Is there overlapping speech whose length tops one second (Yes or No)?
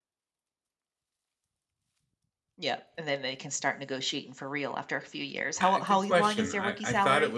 Yes